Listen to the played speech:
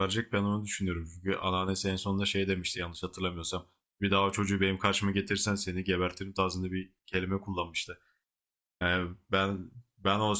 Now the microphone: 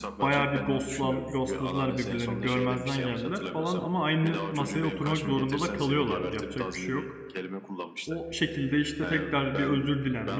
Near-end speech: present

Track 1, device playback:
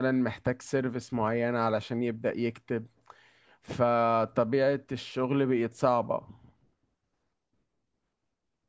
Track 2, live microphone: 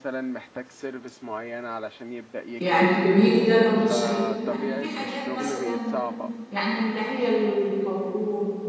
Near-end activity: present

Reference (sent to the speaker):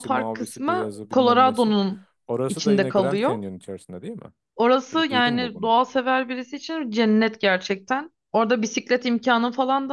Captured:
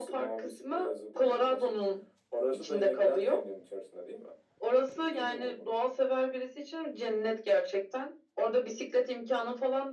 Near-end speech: none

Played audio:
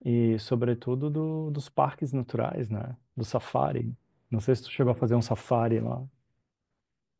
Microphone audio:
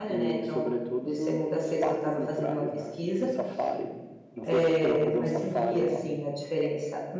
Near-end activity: present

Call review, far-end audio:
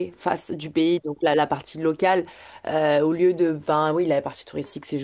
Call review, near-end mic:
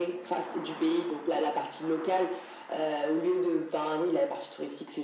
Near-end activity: none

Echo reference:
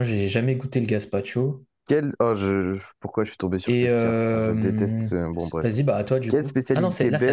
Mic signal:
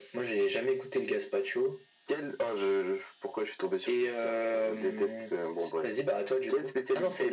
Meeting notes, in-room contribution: none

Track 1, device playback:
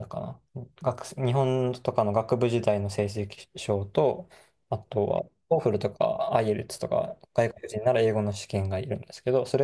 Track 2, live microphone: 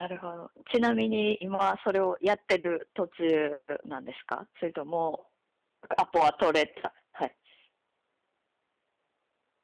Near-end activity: present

